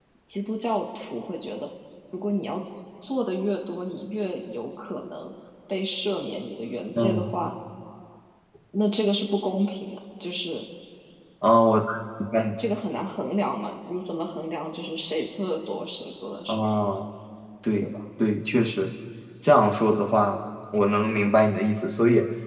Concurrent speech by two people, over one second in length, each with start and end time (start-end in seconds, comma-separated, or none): none